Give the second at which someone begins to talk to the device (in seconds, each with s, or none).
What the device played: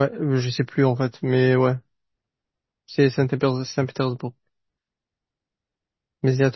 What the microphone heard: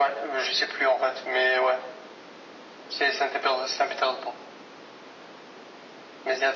none